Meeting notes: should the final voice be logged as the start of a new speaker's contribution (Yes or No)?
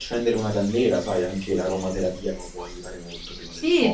Yes